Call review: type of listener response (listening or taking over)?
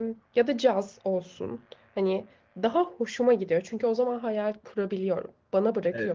taking over